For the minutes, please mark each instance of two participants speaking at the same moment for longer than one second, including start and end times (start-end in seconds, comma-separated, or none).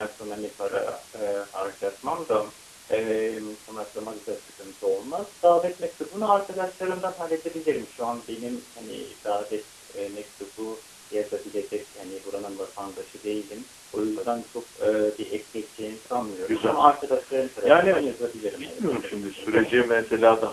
18.6-19.9